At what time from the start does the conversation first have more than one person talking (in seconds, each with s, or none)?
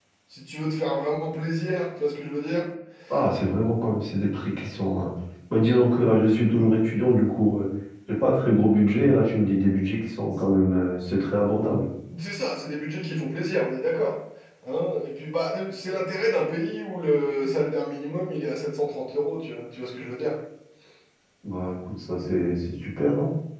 none